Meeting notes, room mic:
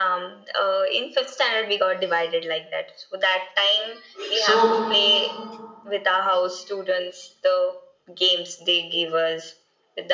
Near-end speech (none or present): present